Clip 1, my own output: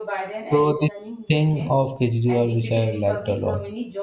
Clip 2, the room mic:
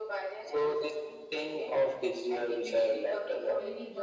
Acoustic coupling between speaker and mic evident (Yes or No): Yes